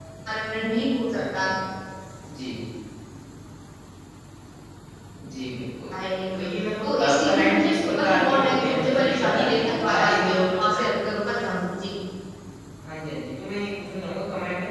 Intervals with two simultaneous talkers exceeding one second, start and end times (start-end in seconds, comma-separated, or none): 6.8-10.9